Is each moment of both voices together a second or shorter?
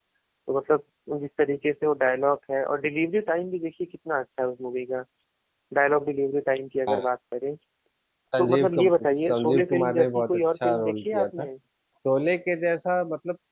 No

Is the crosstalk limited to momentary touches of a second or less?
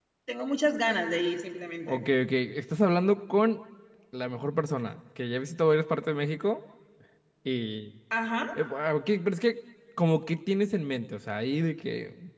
Yes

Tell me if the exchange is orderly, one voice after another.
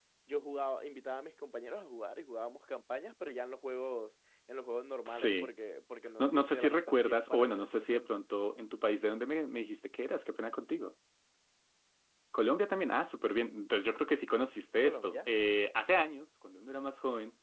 No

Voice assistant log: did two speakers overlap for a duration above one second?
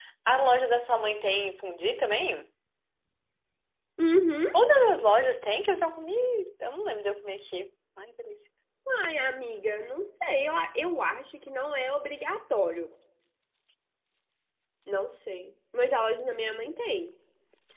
No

